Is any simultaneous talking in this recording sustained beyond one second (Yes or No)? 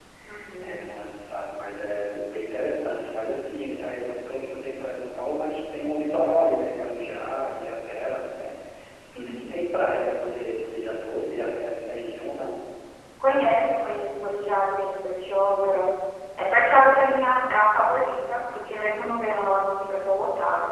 No